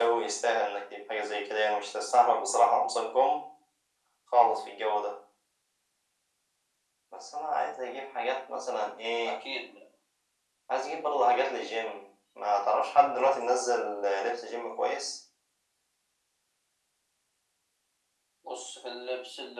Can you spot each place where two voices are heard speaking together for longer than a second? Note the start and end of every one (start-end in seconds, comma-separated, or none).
none